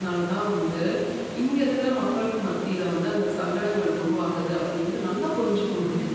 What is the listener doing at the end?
taking over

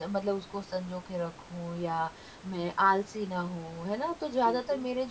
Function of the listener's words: listening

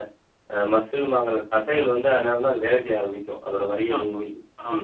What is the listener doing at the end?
taking over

